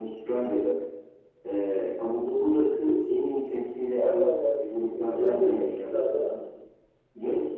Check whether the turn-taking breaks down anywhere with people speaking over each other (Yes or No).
Yes